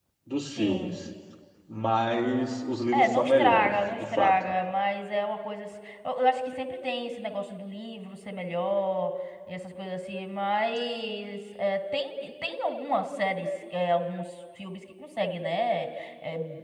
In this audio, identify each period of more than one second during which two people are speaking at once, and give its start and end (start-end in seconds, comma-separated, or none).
2.9-4.3